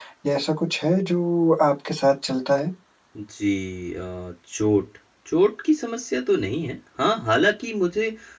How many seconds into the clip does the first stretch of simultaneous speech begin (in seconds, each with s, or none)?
none